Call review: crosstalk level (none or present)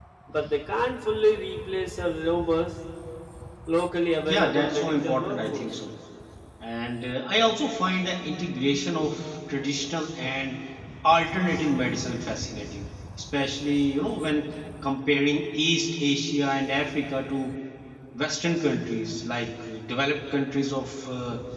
present